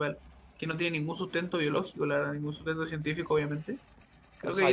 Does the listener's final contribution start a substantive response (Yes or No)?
Yes